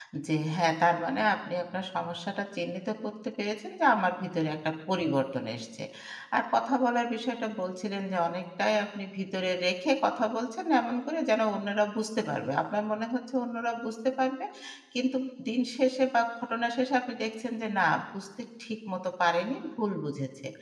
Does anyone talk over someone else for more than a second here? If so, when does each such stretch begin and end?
none

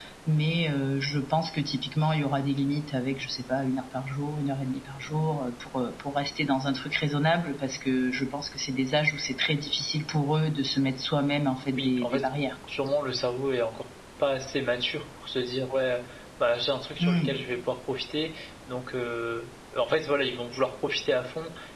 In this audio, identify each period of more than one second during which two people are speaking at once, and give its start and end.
none

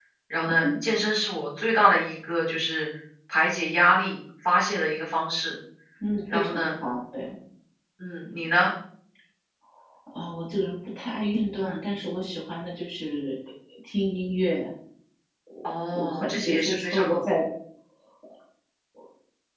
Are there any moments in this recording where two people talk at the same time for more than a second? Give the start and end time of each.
15.9-17.2

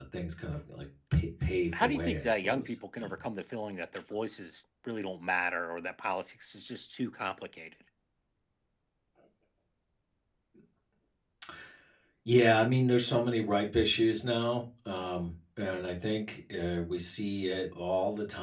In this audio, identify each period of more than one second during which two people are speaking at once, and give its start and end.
1.8-3.2

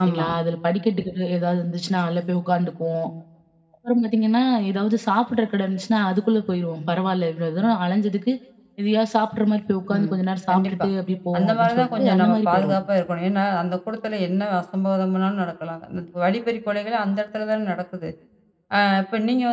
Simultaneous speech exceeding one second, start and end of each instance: 11.4-12.8

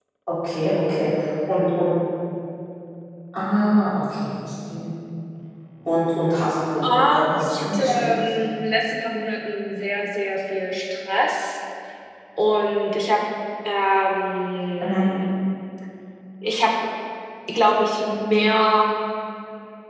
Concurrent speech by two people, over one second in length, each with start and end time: 6.8-8.2

